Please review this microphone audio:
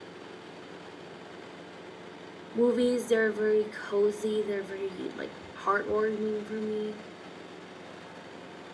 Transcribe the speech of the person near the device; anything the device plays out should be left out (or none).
movies. They're very cozy. They're very like heartwarming for me